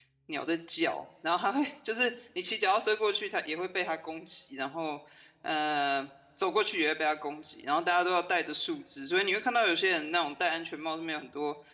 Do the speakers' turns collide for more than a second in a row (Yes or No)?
No